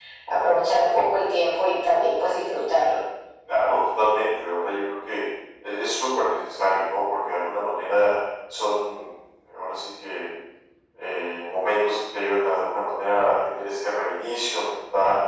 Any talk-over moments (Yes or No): No